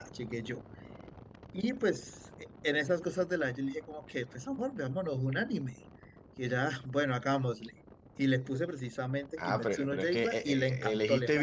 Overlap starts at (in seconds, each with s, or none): 9.4 s